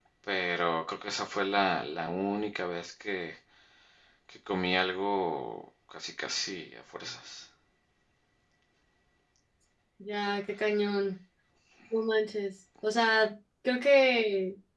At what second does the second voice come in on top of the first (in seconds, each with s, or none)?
none